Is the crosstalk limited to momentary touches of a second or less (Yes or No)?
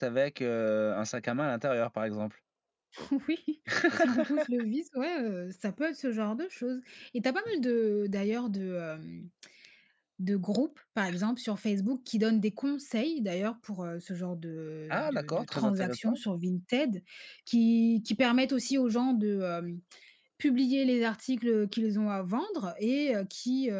No